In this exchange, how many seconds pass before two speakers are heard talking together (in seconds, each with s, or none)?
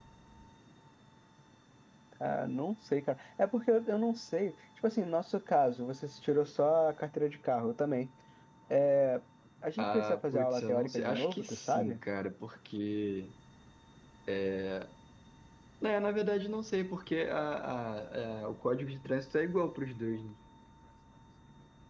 9.8 s